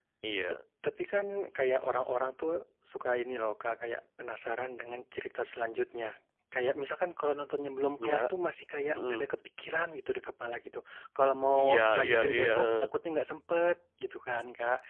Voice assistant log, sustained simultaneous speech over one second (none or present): present